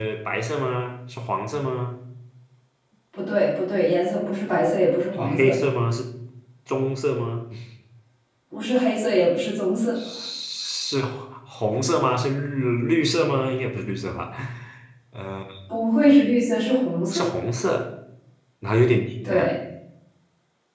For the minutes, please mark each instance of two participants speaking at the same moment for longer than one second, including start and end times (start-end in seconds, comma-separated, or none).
none